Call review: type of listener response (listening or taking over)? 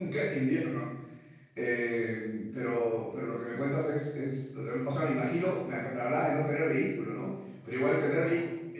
listening